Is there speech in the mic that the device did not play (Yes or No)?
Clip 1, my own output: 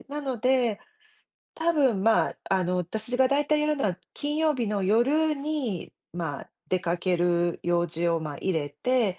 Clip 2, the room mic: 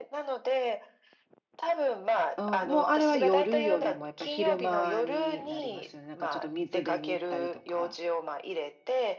Yes